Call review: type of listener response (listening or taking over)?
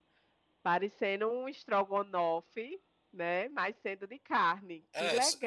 taking over